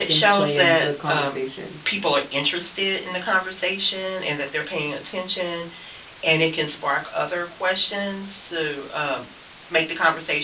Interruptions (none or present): present